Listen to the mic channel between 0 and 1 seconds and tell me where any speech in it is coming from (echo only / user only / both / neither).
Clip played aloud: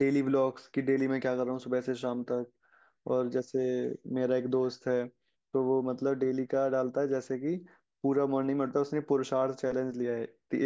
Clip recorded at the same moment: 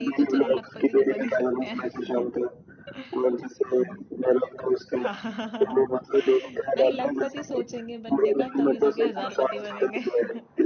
both